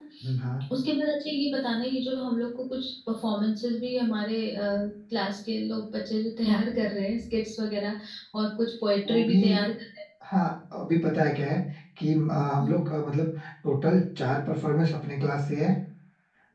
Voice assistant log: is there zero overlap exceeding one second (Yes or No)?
Yes